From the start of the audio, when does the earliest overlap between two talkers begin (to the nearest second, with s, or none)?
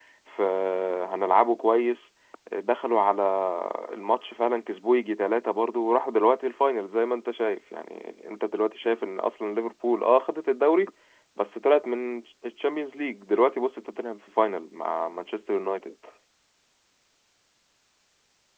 none